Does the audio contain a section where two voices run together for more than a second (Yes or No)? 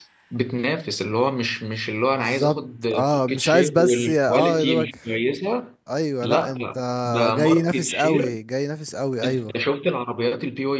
Yes